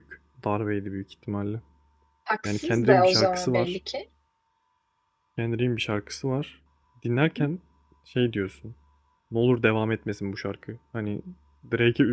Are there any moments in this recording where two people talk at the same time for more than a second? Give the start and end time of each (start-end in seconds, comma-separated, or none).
2.4-3.8